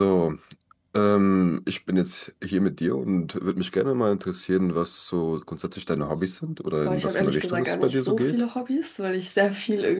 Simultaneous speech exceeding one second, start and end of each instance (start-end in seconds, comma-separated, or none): 6.8-8.4